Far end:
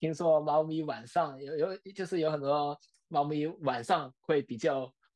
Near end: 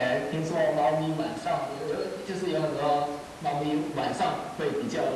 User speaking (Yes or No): No